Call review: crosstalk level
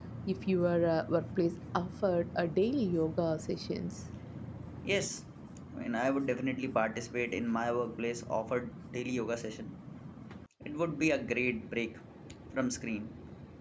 none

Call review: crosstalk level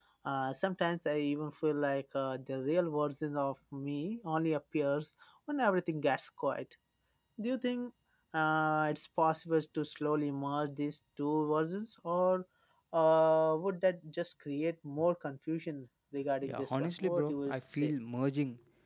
present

